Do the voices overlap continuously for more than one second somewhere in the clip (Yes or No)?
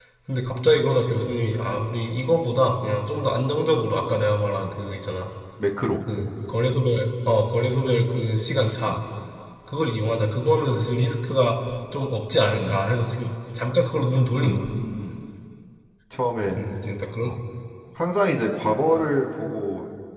No